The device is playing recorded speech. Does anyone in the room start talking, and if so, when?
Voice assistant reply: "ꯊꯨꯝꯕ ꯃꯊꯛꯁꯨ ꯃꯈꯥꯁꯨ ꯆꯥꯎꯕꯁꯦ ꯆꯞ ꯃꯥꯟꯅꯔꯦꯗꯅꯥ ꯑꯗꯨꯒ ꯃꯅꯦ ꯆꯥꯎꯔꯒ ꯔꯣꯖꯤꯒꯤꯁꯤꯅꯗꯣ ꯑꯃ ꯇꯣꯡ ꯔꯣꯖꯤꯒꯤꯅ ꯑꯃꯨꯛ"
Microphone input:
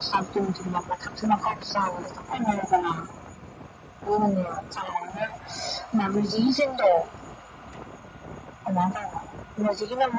none

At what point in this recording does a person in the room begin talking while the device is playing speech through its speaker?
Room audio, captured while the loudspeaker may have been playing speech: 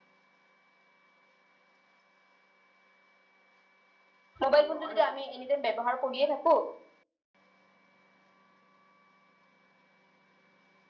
4.4 s

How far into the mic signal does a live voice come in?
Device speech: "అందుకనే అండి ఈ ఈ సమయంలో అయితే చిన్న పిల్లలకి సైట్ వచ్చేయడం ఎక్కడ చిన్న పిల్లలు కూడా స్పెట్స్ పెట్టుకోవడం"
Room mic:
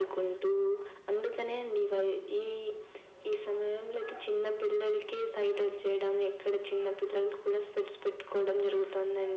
none

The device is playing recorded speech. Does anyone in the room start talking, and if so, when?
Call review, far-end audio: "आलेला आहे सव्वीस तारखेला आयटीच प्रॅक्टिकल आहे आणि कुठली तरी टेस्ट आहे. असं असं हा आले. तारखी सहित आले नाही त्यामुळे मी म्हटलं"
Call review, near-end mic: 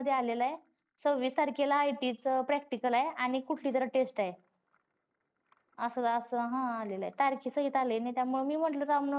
none

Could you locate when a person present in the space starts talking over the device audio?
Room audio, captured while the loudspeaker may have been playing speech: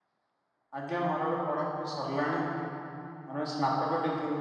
0.8 s

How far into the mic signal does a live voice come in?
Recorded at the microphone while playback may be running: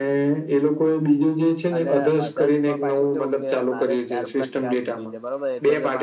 1.8 s

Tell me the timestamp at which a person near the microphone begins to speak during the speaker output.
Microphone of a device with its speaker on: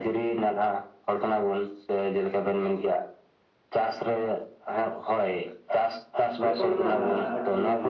6.4 s

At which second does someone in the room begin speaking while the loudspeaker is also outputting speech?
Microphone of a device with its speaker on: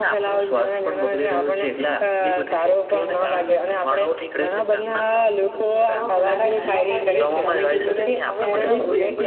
6.0 s

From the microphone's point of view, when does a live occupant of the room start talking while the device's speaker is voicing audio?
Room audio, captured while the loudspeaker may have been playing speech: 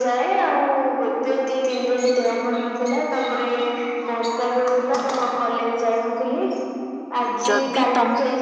7.5 s

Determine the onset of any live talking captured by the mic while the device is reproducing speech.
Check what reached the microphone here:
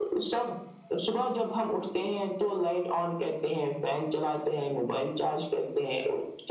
none

